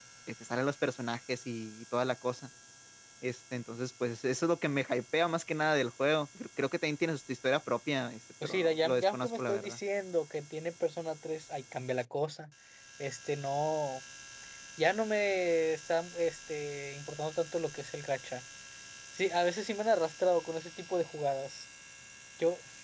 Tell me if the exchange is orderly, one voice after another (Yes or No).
No